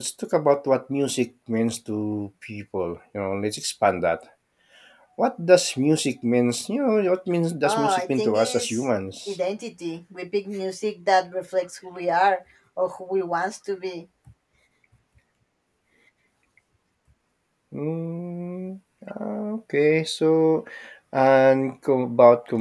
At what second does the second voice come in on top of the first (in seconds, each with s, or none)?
7.6 s